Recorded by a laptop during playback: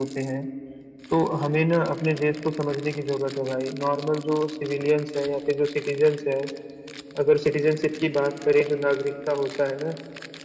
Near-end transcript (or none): none